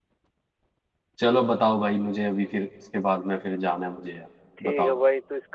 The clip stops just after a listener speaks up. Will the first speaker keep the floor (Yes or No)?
No